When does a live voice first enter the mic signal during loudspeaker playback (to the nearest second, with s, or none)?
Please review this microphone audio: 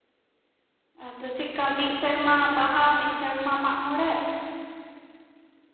1 s